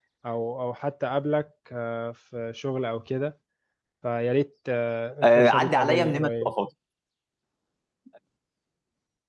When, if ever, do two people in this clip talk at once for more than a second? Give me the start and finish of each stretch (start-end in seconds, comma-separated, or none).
5.2-6.5